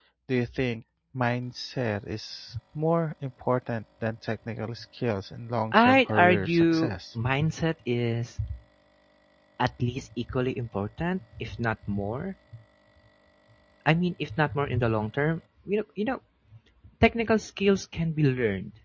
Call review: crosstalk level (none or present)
present